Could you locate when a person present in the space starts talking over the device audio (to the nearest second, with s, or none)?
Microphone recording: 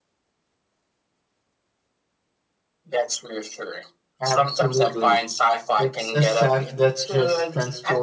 4 s